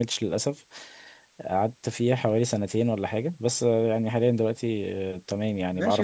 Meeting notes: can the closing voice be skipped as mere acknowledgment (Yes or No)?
No